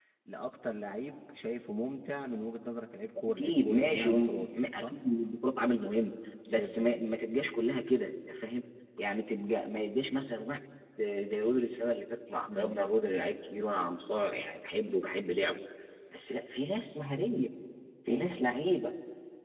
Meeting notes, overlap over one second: present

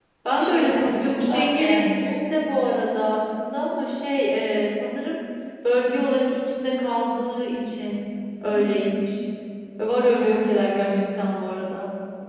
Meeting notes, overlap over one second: present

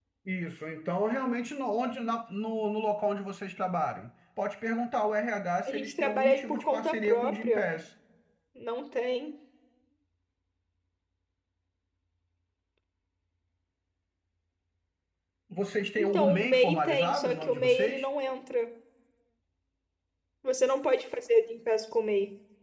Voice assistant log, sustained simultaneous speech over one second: present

